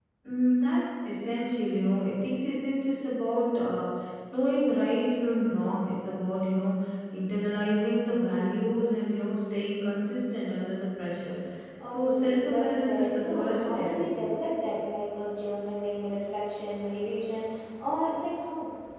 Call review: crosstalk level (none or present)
present